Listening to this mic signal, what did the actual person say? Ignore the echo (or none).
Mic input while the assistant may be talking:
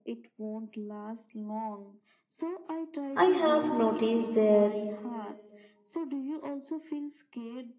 I have noticed that